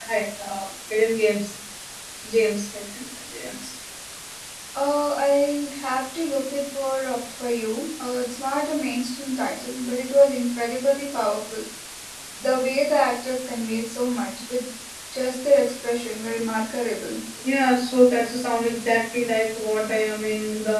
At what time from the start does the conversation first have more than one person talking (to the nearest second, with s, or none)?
none